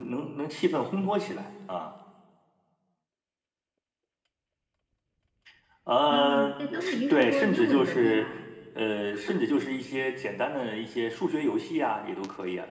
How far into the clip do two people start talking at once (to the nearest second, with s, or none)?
6 s